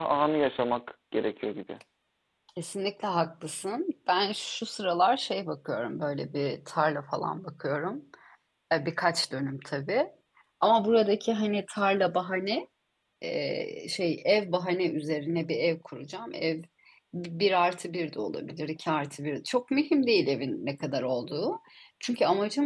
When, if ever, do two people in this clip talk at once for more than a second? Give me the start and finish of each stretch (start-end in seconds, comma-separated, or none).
none